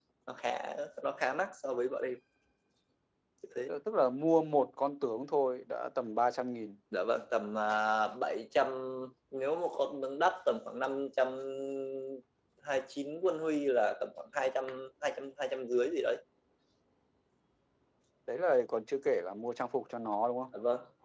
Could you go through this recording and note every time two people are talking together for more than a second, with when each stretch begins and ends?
none

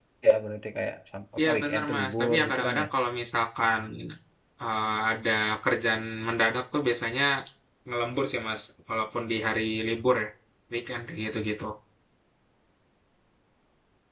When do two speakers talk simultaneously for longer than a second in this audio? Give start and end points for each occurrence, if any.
1.4-2.9

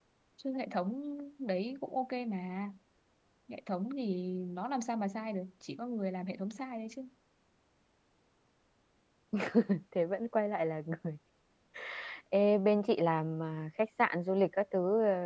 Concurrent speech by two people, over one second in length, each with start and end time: none

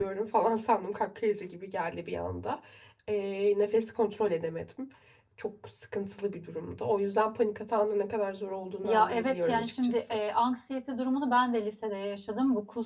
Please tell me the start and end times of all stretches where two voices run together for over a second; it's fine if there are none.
8.8-10.2

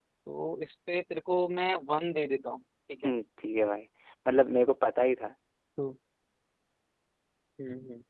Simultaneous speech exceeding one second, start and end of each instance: none

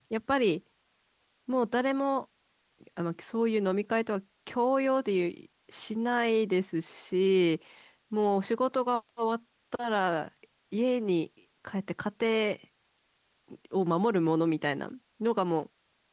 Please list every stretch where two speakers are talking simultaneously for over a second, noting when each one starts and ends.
none

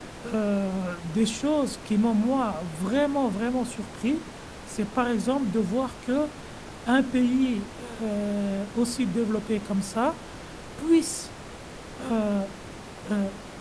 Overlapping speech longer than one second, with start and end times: none

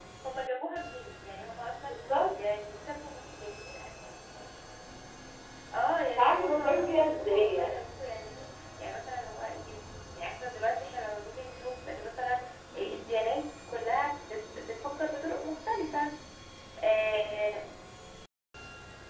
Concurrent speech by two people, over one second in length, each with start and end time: 6.2-7.8

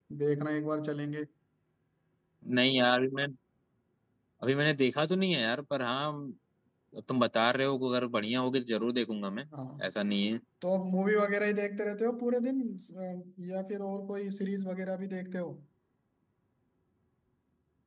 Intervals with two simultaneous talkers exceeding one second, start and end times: none

